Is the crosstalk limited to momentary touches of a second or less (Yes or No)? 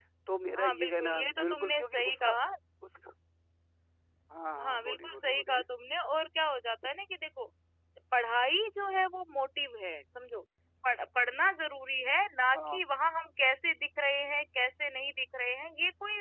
No